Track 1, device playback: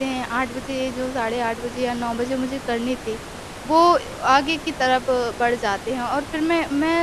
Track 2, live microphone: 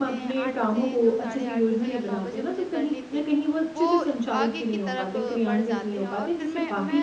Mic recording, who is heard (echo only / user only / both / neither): both